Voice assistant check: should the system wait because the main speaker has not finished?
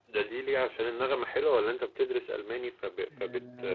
No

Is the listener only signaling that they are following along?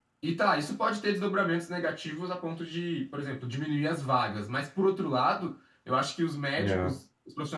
Yes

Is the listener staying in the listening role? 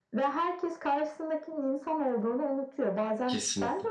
Yes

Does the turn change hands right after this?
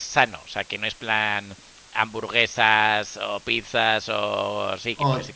Yes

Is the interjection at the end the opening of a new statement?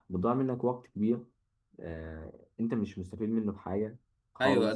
Yes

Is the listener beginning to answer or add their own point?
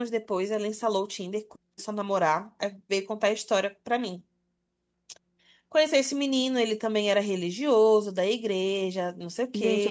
Yes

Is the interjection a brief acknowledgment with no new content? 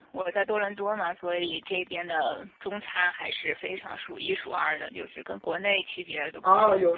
No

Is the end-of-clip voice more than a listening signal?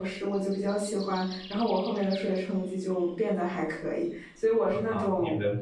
Yes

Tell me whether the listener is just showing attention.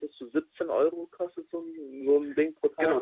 No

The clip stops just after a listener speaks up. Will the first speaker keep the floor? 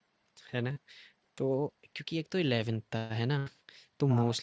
Yes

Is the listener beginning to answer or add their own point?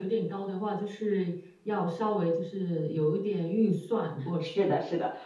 Yes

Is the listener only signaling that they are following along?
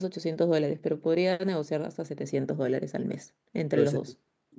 No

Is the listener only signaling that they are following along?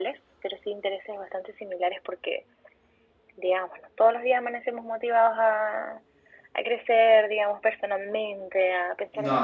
Yes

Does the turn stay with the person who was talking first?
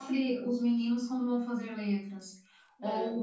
Yes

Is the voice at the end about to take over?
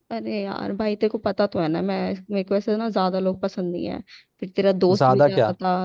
No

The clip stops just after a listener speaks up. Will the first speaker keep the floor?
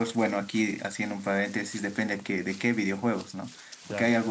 Yes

